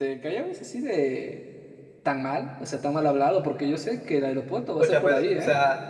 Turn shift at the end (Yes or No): Yes